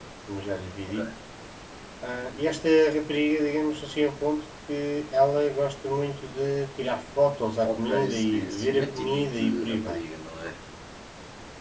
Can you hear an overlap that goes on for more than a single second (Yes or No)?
Yes